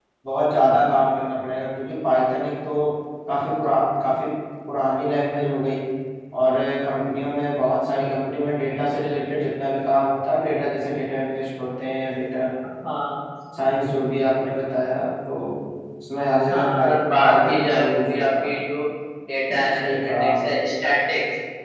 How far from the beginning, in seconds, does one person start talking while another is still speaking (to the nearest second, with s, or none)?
17 s